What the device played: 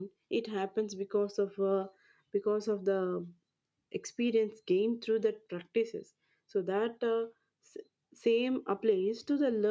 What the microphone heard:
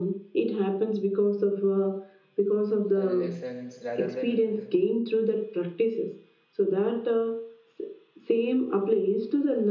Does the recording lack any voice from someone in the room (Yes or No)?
No